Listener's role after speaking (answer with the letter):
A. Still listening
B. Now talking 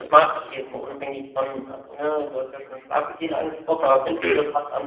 A